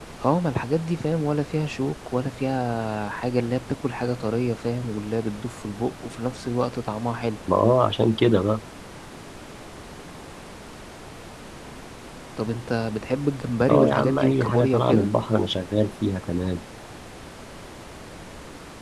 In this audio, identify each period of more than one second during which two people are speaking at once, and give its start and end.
13.7-15.1

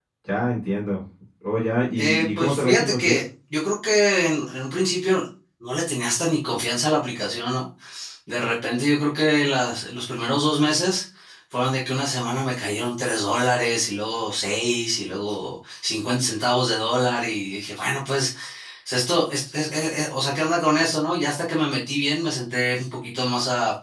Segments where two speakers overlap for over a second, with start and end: 2.0-3.2

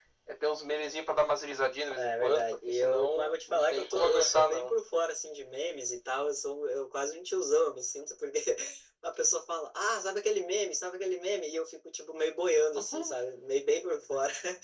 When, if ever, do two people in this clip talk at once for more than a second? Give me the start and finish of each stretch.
1.9-4.7

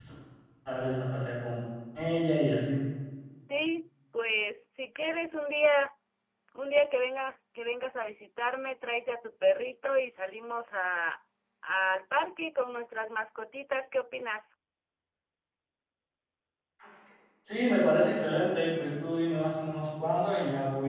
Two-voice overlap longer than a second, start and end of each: none

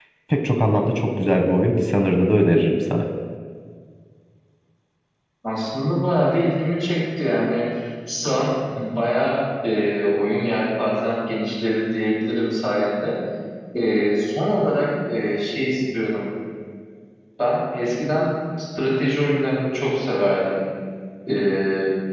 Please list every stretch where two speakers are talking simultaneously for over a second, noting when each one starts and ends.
none

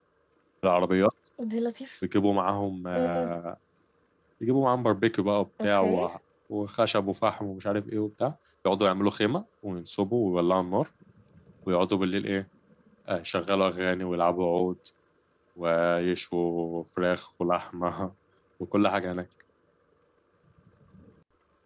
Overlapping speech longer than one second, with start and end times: none

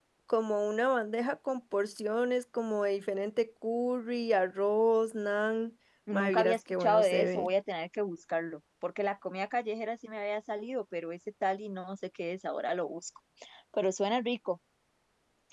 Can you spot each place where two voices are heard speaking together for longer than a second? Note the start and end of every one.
6.1-7.5

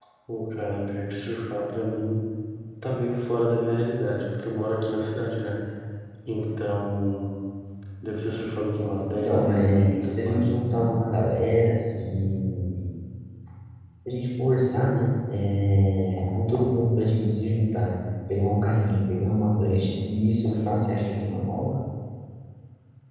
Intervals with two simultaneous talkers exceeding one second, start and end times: 9.2-10.5

